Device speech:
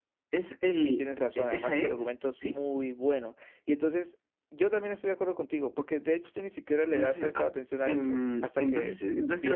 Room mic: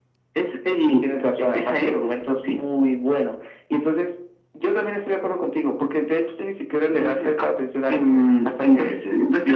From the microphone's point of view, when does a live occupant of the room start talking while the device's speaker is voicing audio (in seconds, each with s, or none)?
none